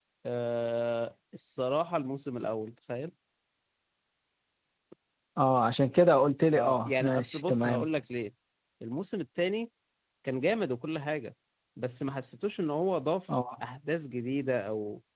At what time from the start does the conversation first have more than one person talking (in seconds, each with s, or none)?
6.5 s